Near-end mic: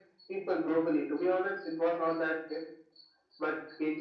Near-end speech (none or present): none